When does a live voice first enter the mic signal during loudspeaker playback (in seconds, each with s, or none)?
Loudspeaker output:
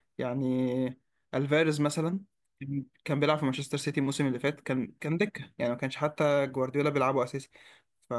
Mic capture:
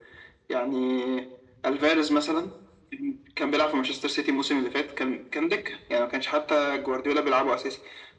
none